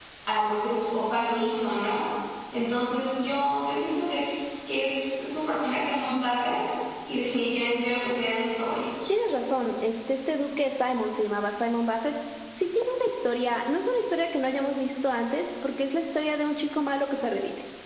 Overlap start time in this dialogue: none

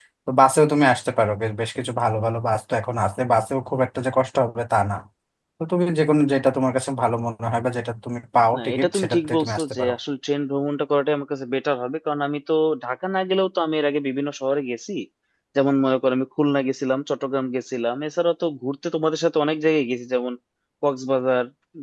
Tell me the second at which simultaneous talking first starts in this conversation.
8.5 s

